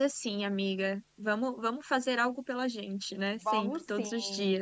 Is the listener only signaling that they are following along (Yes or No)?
No